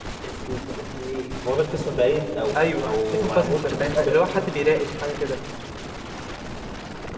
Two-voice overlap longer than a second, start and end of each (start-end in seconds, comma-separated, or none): 2.5-4.5